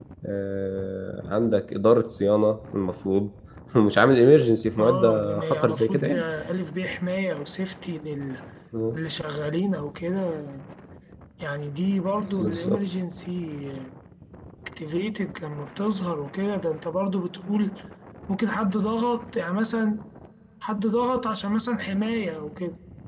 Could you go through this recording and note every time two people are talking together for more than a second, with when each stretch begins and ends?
4.8-6.2

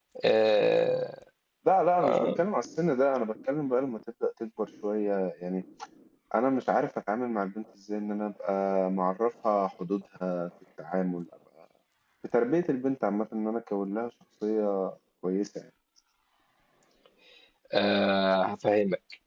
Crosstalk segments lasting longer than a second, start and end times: none

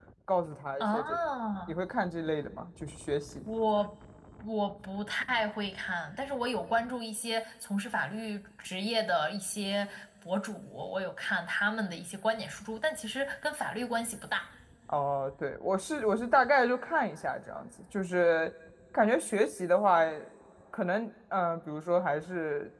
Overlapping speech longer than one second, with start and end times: none

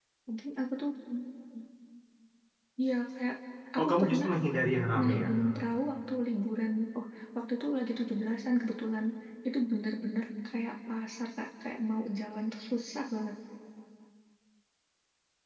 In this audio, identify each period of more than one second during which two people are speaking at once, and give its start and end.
none

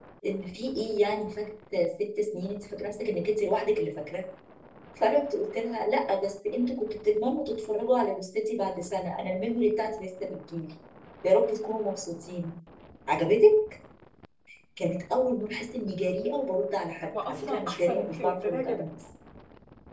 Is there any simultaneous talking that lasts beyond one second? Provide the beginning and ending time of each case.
17.3-18.8

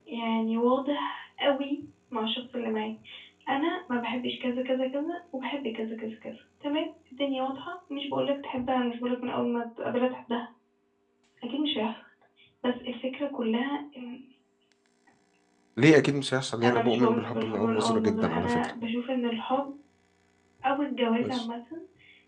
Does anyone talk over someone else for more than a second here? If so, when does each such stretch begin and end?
16.6-18.7

